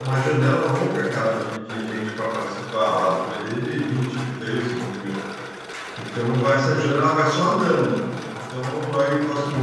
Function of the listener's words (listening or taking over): listening